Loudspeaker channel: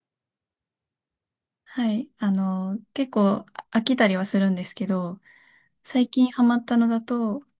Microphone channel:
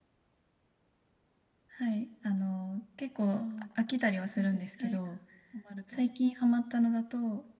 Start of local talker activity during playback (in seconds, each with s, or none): 3.3 s